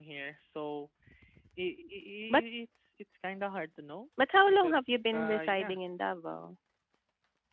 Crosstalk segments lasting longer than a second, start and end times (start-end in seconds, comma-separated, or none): 4.5-5.8